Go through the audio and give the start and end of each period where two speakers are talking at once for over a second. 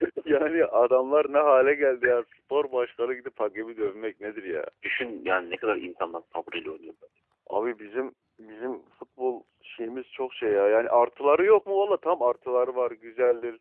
none

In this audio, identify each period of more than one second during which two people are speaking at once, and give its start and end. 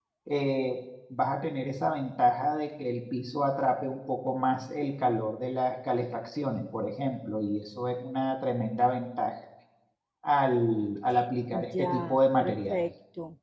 11.5-12.8

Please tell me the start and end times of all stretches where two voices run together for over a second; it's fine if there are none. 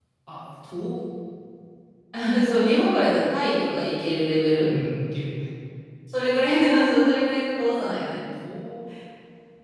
none

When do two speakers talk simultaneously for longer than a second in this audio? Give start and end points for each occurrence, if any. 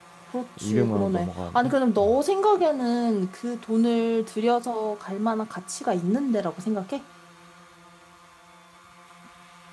0.6-2.2

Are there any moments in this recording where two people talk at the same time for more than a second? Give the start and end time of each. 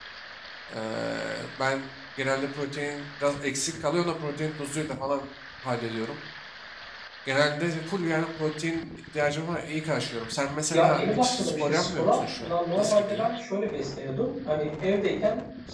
10.7-13.3

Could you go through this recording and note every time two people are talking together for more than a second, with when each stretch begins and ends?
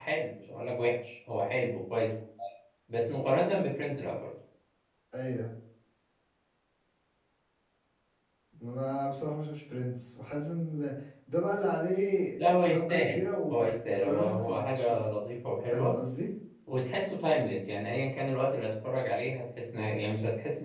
12.4-15.1

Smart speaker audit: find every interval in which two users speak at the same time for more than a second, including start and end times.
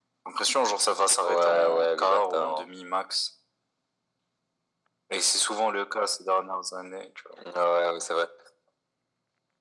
1.2-2.6

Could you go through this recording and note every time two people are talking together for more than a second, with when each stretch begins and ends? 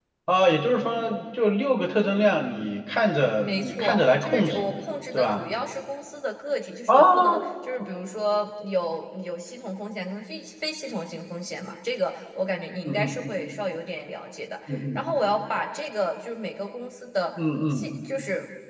3.4-4.7

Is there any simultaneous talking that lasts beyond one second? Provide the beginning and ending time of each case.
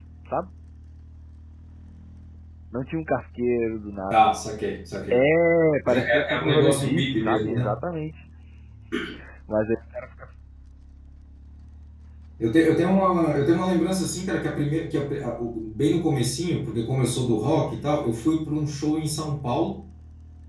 5.9-7.7

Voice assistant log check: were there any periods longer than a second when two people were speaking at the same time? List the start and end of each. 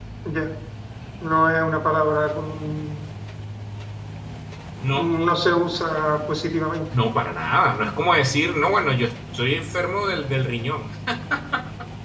none

